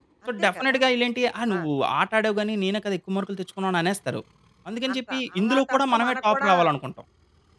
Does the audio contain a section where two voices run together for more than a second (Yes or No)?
Yes